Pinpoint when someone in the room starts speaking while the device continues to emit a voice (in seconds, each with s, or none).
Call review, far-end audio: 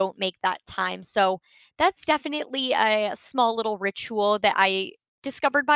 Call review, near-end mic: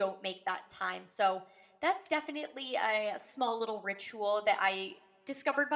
none